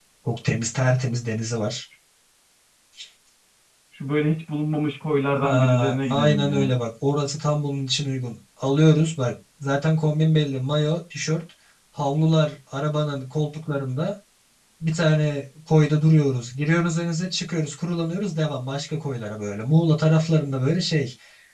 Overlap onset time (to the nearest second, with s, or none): 5 s